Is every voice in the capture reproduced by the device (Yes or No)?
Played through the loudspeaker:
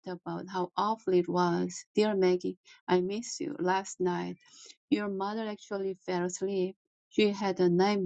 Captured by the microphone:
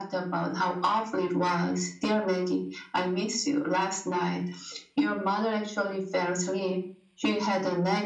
Yes